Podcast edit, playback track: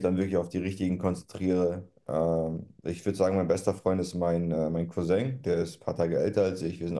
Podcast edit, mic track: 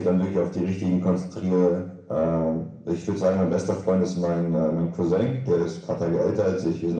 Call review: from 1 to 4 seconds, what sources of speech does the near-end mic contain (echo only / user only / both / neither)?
echo only